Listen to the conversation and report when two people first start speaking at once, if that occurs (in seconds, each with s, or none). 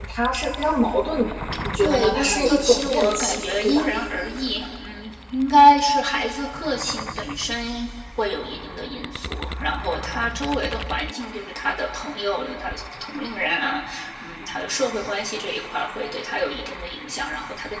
1.8 s